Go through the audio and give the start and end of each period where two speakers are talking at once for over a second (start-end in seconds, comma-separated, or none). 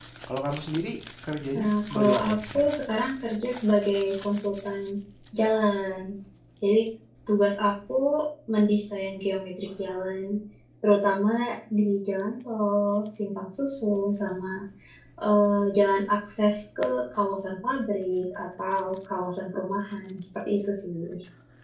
1.5-2.7